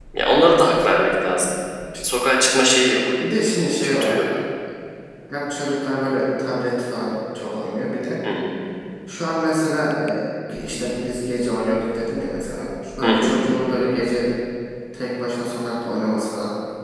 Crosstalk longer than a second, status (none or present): none